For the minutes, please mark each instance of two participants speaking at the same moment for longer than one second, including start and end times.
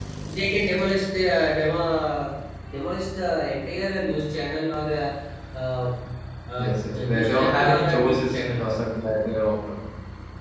6.6-8.6

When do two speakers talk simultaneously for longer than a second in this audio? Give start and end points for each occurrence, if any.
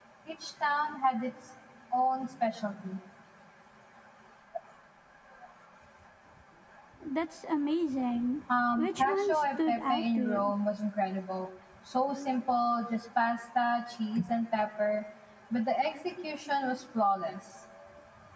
8.7-10.5

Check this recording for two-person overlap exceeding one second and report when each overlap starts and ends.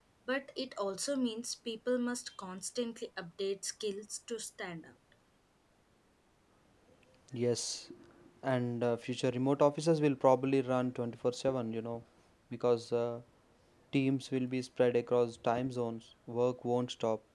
none

